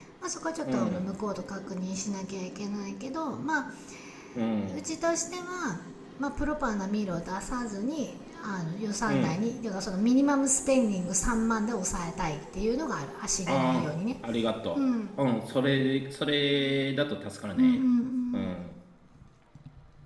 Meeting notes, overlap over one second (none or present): none